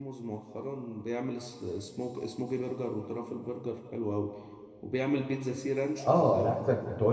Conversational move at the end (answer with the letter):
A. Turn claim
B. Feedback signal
A